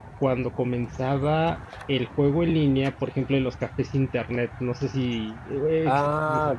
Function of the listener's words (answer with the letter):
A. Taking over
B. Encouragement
A